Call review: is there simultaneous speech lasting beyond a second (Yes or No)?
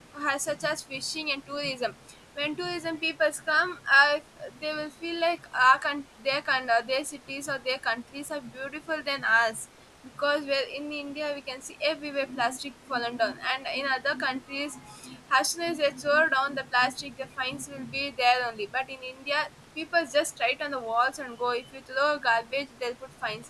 No